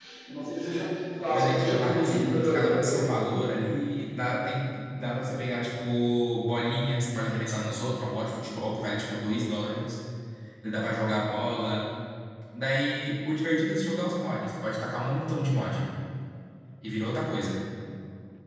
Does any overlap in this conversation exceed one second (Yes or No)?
Yes